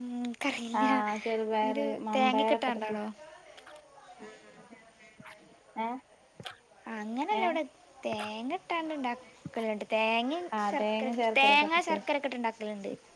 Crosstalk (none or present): present